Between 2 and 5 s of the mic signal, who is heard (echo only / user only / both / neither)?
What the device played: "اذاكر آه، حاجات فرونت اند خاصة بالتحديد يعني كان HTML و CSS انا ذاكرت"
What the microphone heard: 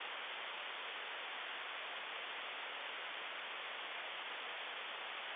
neither